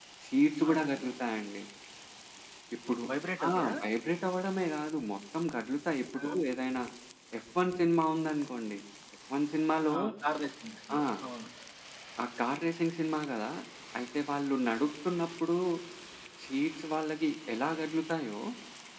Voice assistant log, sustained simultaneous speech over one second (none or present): none